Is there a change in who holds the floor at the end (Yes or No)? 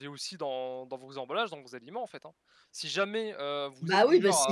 Yes